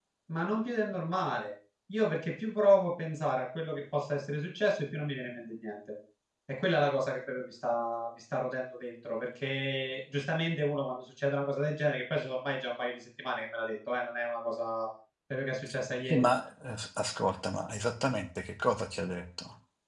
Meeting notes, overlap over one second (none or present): none